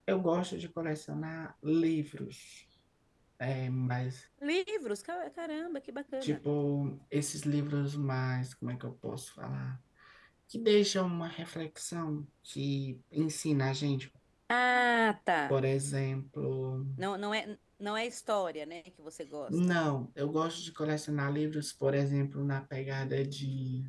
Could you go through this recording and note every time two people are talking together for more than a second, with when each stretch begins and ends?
none

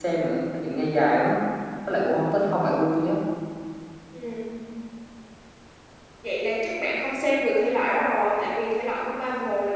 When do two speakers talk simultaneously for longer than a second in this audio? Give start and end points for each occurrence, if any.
none

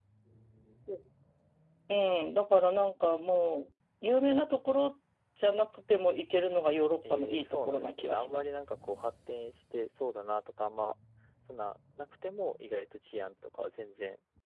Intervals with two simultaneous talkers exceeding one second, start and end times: 7.1-8.4

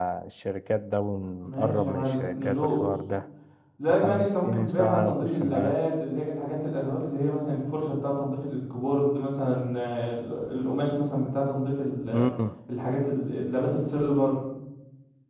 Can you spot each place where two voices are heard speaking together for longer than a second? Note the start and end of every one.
1.4-2.8, 3.9-5.8

